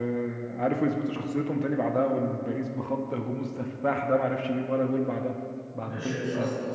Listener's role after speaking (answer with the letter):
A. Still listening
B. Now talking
B